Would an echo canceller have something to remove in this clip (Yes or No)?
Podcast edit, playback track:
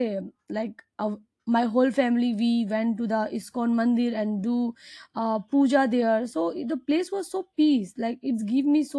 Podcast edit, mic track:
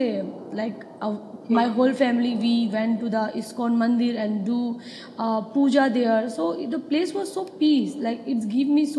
Yes